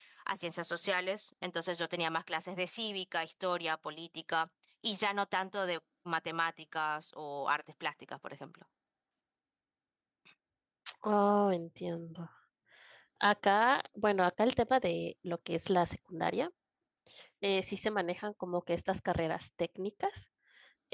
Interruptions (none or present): none